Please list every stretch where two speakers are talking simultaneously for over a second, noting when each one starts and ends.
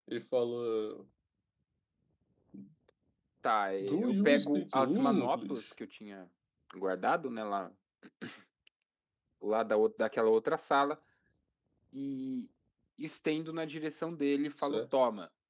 3.8-5.7

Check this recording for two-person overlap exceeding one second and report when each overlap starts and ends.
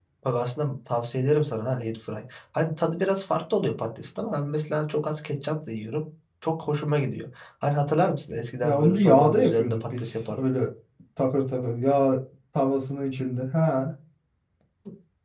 8.6-10.5

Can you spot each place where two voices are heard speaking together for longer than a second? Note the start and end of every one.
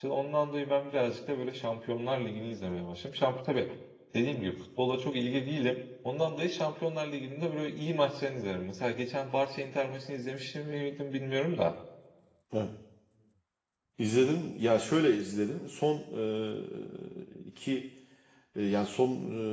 none

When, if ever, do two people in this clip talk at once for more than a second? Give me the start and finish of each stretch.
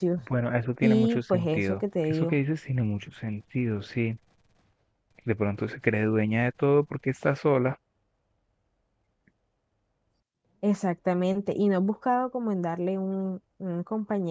0.8-2.4

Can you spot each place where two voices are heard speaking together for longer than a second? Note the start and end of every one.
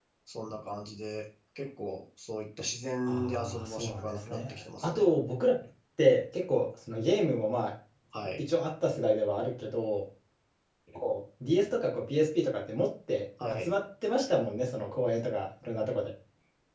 3.1-5.1

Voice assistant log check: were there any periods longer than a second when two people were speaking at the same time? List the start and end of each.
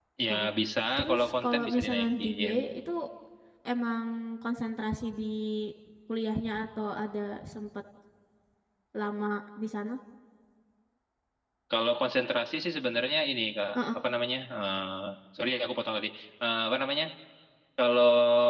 1.0-2.5

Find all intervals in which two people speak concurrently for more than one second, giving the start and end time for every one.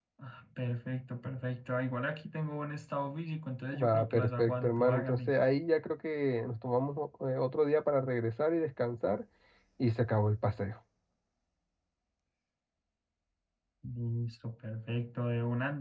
3.7-5.4

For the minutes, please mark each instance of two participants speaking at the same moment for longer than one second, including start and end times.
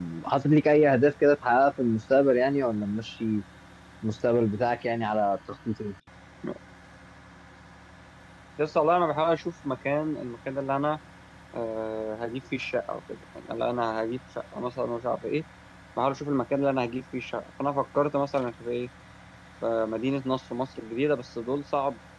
none

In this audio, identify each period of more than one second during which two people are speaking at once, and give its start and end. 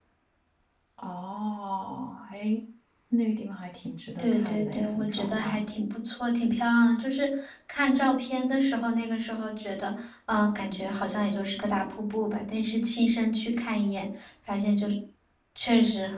4.2-5.7

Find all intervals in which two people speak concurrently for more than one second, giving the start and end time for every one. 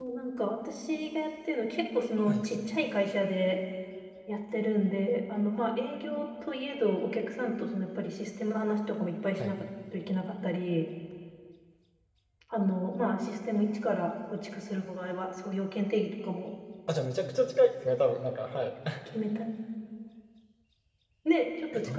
none

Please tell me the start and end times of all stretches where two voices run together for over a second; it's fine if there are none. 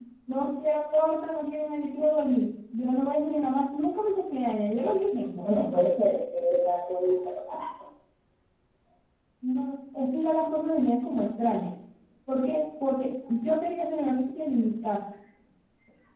none

